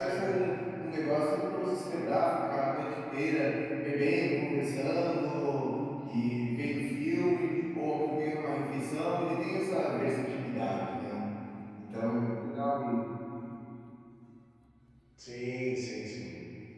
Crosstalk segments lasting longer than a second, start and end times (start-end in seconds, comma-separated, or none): none